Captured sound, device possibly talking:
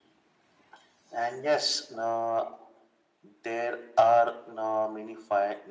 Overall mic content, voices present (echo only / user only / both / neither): echo only